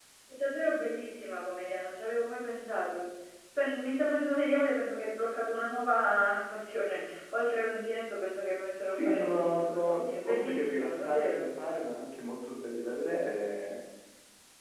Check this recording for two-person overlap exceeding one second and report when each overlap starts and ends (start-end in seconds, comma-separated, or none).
8.9-11.4